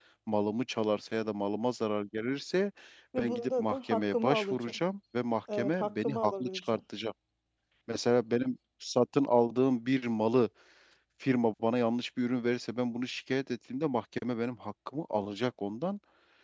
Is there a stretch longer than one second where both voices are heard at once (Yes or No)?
Yes